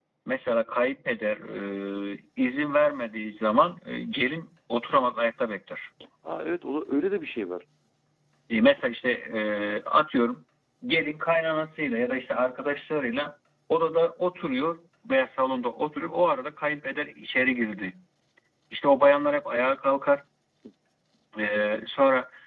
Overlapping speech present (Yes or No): No